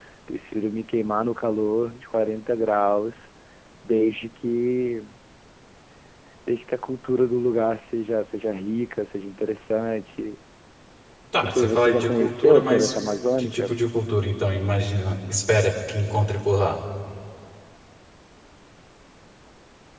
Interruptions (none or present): present